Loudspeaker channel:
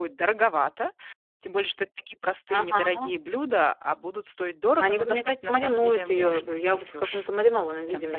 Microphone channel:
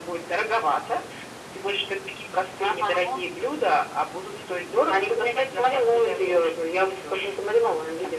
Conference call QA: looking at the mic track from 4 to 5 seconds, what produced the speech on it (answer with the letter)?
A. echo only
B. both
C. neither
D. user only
A